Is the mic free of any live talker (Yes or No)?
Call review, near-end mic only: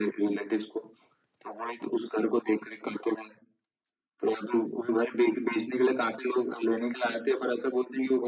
Yes